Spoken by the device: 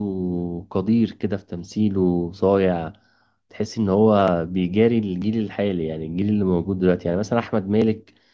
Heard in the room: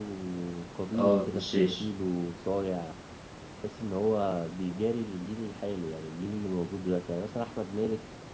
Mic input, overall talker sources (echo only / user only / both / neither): both